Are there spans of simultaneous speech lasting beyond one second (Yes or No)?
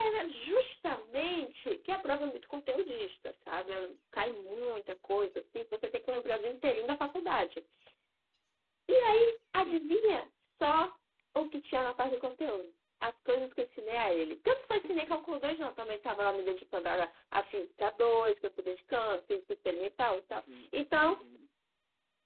No